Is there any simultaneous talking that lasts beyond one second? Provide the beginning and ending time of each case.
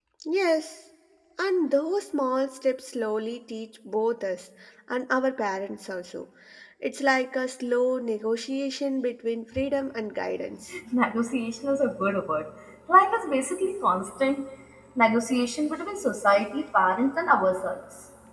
none

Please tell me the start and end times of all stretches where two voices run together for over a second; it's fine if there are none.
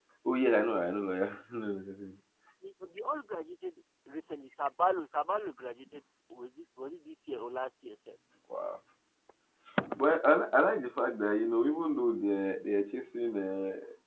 none

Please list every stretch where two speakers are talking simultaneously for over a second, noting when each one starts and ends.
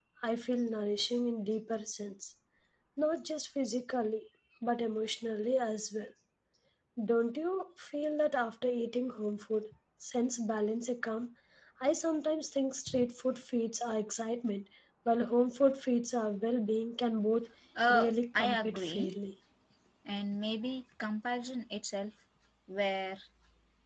17.9-19.1

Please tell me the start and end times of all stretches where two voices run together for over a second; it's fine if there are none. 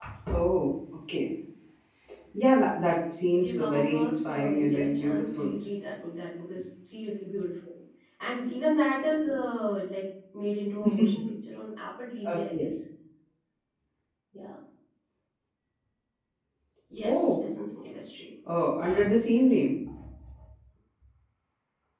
3.3-5.5

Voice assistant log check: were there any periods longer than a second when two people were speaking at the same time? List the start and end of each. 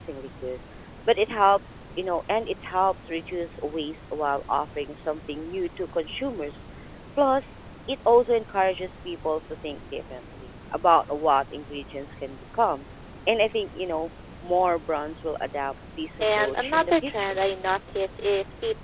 16.2-17.4

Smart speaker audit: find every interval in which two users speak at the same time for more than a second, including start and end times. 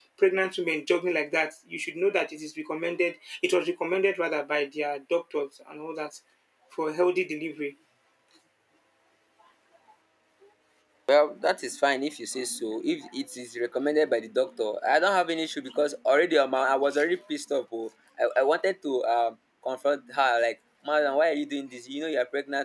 none

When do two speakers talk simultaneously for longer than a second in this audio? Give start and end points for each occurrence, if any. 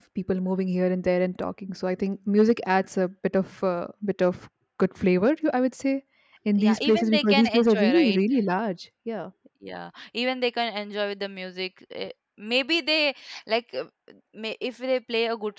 6.6-8.2

